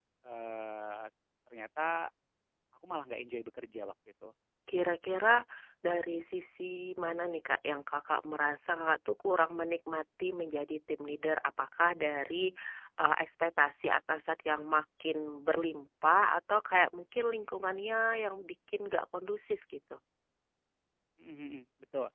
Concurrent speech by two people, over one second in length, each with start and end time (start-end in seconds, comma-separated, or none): none